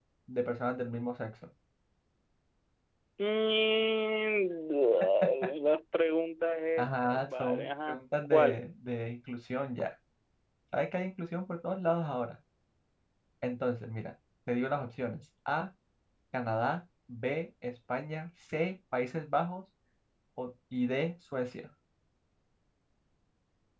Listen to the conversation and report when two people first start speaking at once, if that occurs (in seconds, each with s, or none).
6.8 s